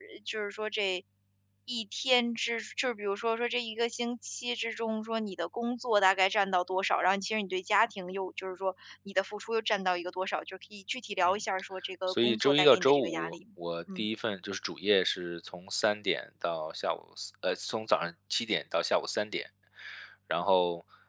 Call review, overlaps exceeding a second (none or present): present